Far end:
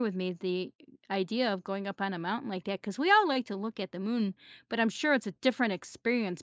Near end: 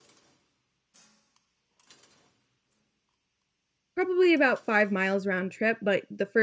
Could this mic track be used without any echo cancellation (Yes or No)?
Yes